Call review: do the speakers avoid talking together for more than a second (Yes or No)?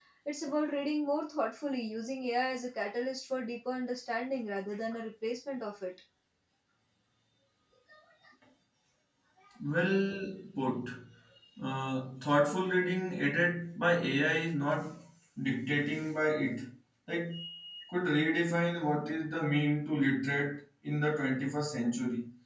Yes